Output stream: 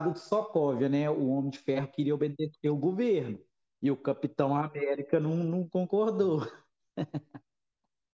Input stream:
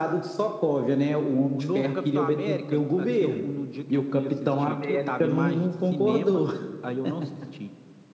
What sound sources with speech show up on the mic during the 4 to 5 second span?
both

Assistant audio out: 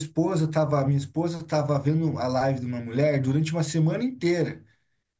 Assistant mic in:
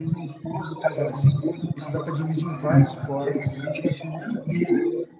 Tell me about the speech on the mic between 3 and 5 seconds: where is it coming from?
both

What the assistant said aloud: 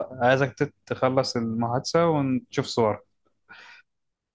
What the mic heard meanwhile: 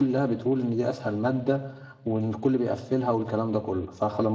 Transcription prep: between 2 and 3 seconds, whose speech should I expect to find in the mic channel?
user only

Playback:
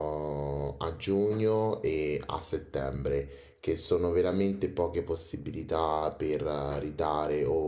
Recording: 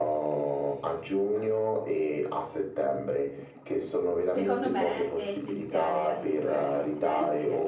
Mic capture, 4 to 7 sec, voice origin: both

